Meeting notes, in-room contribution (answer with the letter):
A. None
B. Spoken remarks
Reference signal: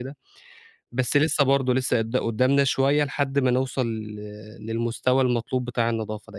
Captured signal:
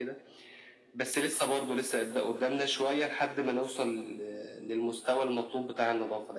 A